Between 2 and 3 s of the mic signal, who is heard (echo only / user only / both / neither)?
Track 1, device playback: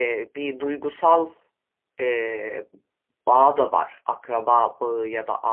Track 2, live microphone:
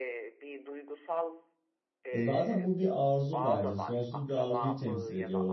both